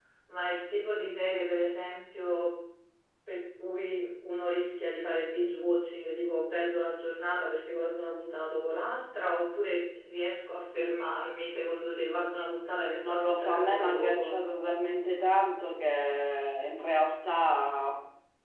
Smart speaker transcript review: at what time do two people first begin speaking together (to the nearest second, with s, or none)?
13 s